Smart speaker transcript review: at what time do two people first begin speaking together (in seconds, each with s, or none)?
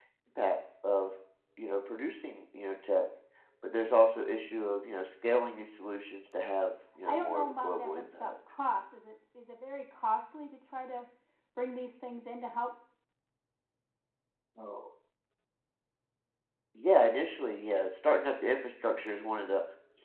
7.0 s